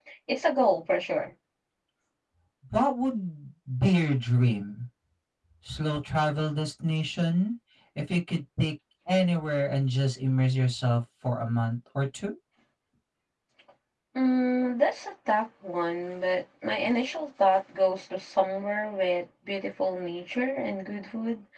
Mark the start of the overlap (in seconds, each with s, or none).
none